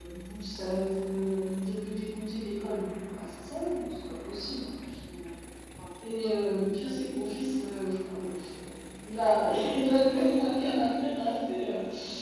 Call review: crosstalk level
none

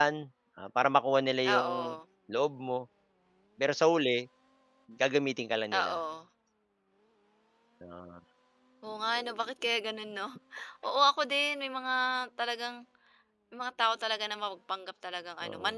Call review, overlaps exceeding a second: none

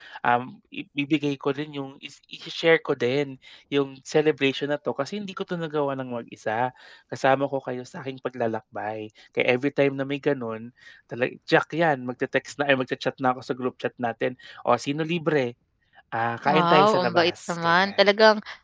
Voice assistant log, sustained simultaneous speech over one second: present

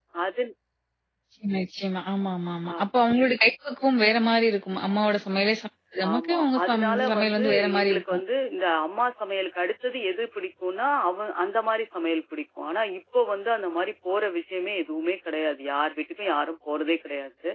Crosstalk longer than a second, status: present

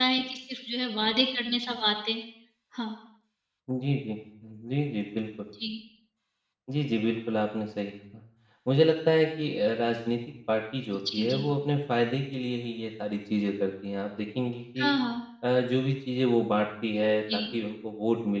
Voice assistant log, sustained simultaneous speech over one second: none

